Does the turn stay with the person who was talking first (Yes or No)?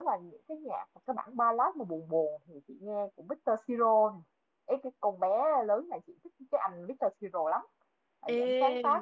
Yes